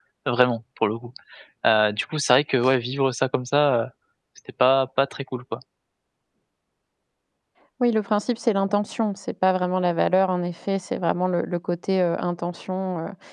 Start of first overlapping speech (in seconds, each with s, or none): none